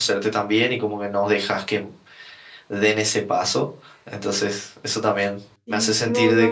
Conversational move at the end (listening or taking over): taking over